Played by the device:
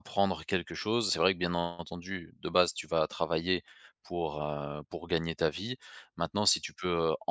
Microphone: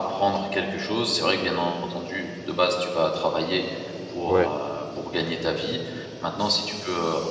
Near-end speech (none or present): present